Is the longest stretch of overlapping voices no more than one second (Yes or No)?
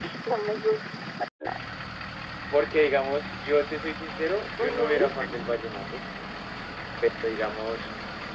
Yes